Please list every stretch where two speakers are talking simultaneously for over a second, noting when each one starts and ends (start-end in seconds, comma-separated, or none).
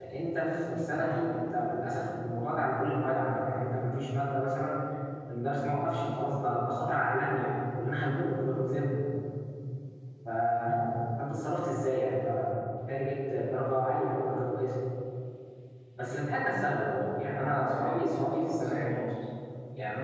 17.2-18.8